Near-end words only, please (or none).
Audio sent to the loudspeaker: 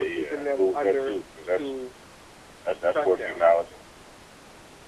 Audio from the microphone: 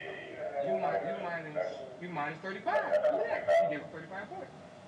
You might you minus you minus 35. Look at that. You gave up 35 points.